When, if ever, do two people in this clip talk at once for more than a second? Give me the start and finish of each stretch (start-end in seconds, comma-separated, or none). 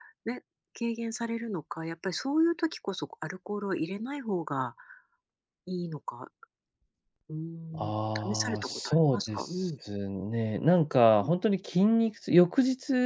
8.3-9.6